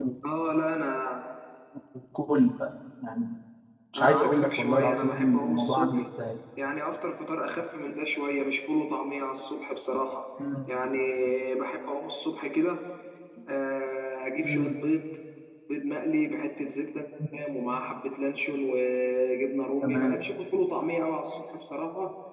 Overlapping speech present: Yes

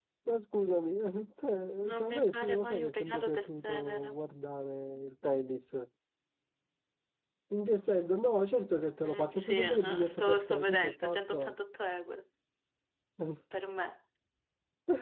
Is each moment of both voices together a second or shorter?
No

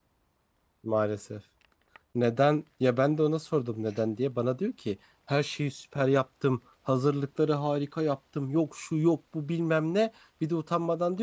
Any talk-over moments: No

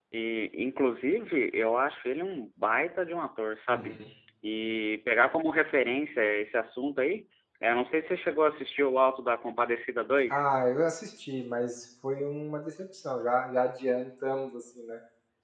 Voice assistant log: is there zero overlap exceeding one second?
Yes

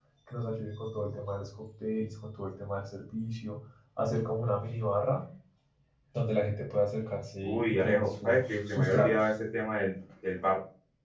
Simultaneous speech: Yes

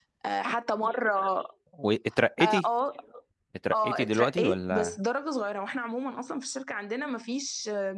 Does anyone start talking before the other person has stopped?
Yes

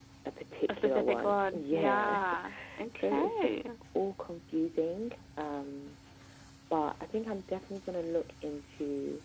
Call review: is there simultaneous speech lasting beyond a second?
Yes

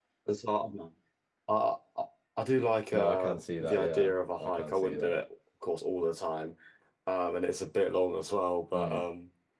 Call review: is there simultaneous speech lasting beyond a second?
Yes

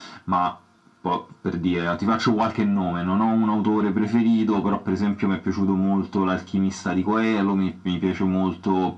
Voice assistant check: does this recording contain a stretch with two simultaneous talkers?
No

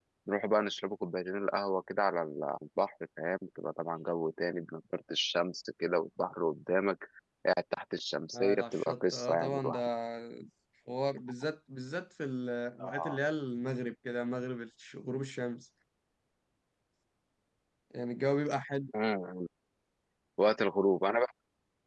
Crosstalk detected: Yes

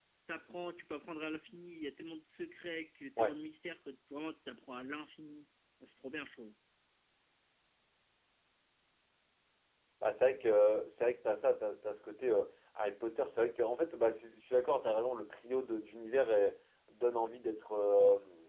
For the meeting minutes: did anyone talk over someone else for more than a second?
No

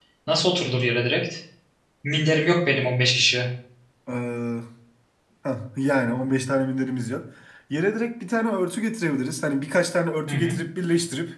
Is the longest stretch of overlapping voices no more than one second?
Yes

